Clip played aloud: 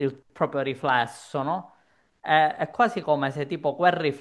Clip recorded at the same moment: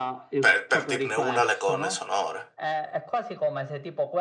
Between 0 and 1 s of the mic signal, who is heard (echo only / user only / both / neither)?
both